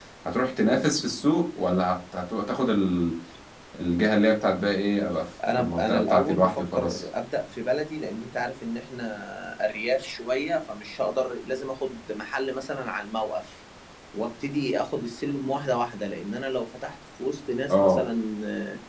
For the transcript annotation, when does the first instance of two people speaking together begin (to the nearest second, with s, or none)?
6 s